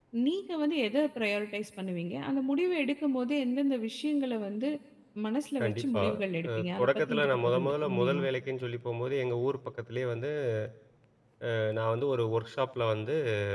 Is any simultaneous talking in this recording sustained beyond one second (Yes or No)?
Yes